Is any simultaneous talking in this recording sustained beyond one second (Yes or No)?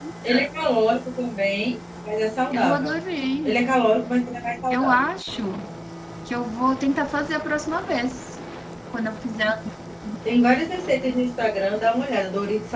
No